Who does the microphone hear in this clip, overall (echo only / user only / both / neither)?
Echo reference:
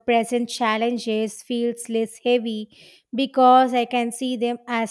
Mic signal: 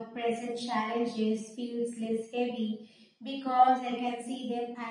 echo only